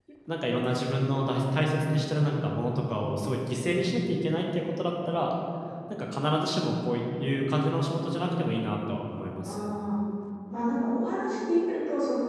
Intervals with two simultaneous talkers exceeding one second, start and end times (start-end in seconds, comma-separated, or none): none